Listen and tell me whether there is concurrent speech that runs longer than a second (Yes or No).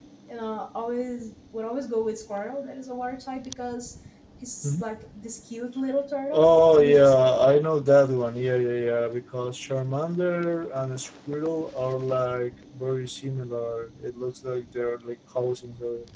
Yes